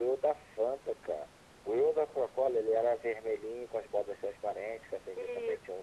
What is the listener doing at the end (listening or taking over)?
listening